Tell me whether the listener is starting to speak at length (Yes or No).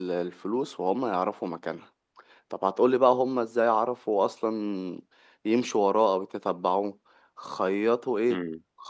No